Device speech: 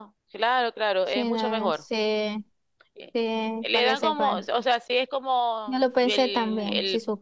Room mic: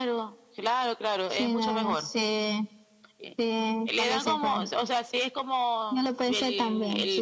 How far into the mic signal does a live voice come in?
none

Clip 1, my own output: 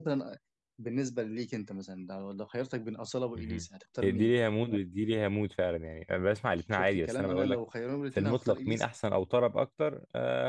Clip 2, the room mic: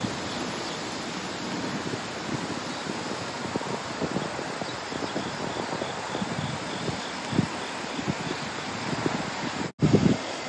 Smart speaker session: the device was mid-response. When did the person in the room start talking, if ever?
none

